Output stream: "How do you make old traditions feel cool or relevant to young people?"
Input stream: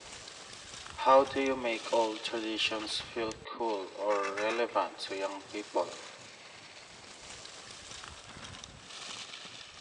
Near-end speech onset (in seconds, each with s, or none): none